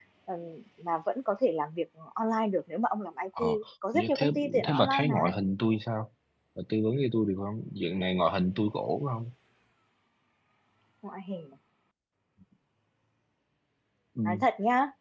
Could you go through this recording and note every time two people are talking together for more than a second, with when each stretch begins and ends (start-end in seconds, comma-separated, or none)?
3.9-5.2